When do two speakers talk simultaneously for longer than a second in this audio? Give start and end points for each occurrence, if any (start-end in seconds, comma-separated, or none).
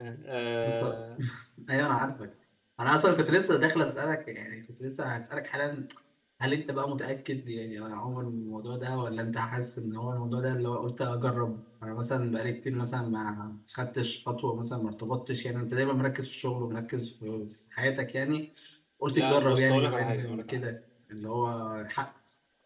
19.1-20.6